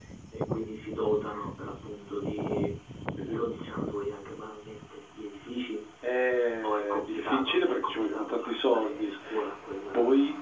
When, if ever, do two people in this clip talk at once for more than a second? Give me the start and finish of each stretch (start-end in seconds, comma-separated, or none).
6.6-9.1